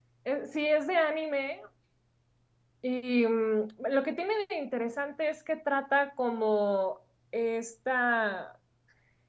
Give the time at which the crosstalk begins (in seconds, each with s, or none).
none